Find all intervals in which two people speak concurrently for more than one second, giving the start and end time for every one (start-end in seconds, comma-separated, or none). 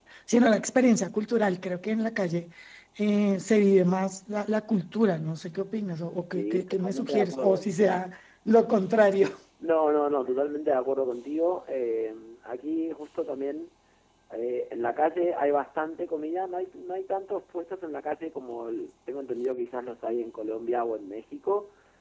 6.3-7.7